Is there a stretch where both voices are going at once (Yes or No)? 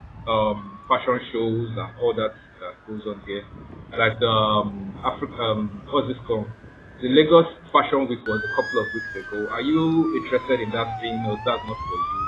No